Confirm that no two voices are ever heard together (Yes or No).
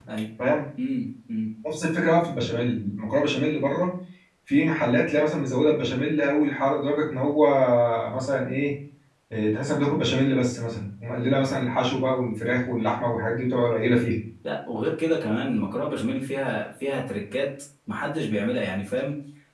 Yes